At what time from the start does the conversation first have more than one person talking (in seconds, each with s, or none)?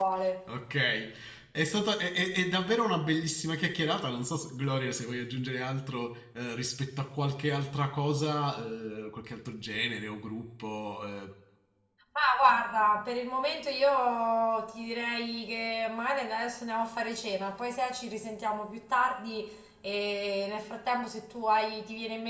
none